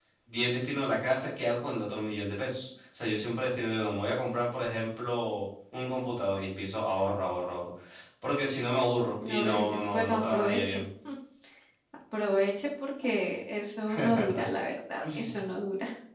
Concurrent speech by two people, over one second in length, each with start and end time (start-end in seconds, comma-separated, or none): 9.2-10.8